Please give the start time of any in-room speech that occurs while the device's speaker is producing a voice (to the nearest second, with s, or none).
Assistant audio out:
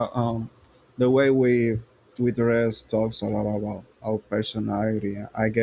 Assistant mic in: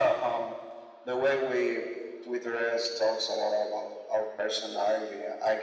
none